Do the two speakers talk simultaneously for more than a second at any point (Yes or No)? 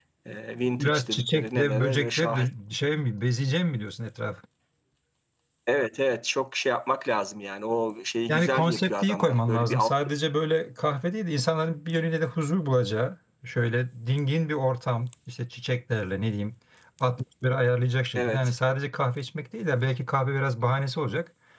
Yes